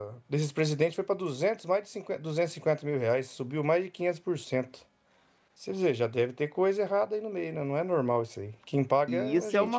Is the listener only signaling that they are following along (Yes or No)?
No